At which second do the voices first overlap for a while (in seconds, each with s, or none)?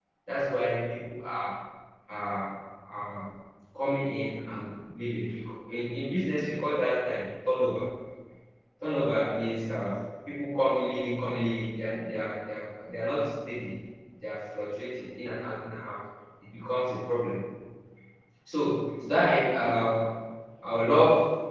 none